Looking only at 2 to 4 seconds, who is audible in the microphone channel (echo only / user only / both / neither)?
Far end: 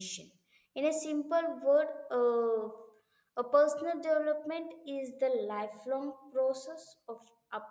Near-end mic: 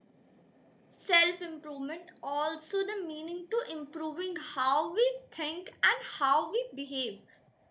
user only